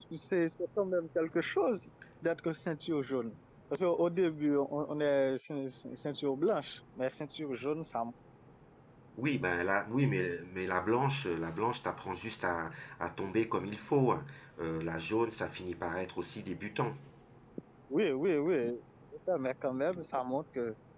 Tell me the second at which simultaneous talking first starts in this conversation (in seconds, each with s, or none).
none